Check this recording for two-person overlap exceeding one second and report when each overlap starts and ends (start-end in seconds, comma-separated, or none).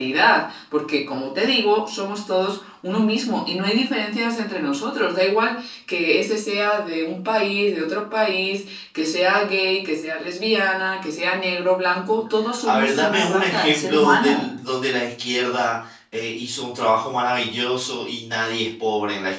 12.7-14.5